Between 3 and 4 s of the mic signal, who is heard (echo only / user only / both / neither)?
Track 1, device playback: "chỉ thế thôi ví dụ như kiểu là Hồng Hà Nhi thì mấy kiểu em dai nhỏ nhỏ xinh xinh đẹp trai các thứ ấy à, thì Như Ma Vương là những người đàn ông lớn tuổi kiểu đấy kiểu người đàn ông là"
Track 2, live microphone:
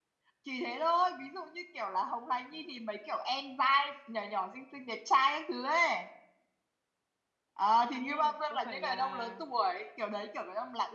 echo only